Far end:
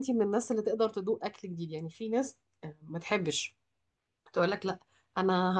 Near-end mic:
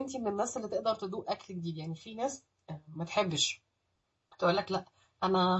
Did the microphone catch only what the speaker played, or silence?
Yes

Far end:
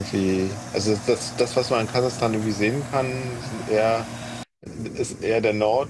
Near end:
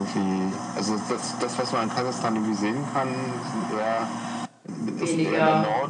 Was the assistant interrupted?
Yes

